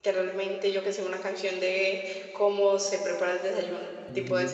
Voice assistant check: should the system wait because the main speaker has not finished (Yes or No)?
No